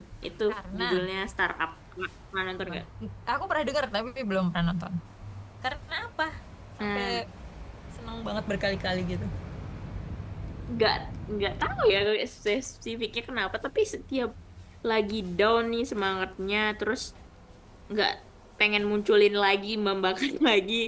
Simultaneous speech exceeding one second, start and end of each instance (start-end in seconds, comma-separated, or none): none